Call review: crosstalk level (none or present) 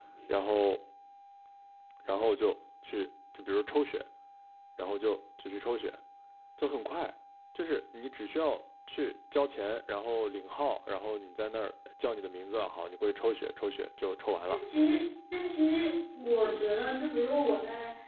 none